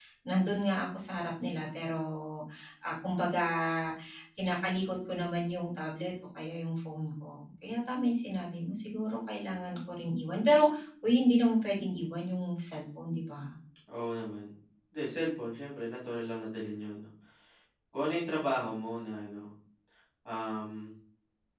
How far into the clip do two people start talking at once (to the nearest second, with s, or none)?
none